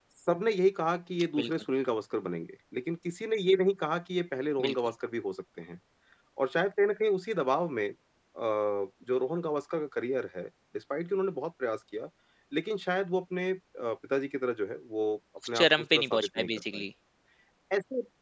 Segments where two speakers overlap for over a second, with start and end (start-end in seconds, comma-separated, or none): 15.5-16.8